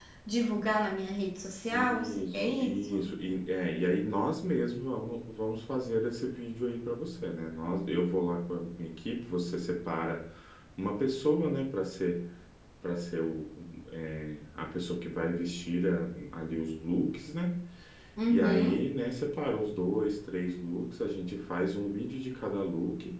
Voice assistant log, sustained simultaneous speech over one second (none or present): present